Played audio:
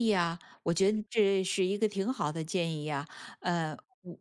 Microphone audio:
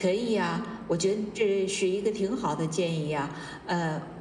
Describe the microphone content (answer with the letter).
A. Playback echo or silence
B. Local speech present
A